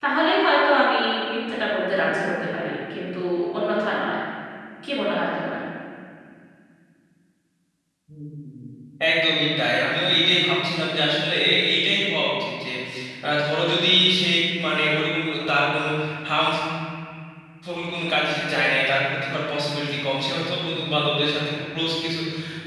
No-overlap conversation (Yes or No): Yes